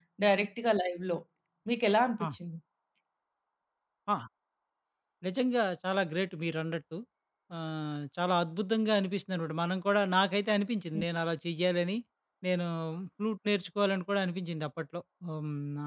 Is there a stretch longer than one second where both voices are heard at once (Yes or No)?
No